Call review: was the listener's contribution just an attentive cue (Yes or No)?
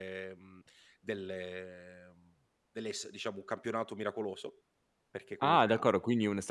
No